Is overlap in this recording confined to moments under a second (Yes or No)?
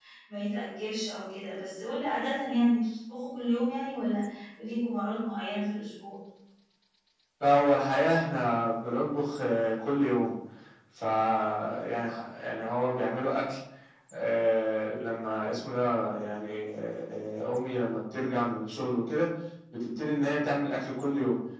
Yes